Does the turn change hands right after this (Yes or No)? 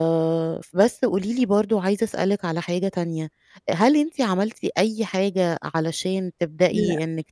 No